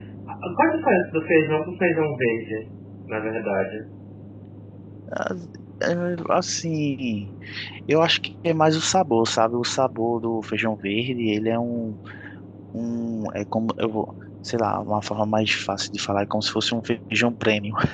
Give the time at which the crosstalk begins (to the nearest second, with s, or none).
none